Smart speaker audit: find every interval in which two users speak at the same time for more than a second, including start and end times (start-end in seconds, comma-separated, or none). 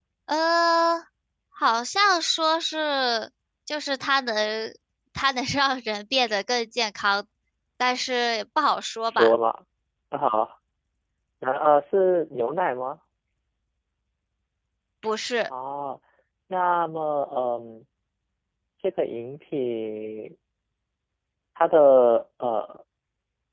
none